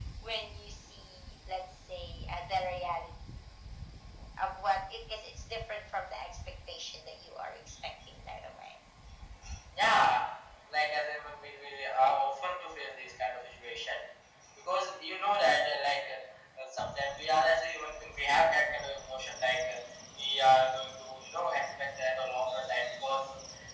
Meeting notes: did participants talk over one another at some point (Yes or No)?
No